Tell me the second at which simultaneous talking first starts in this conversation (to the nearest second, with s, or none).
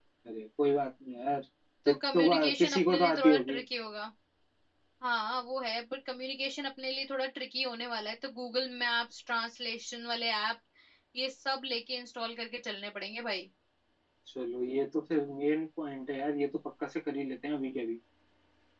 2 s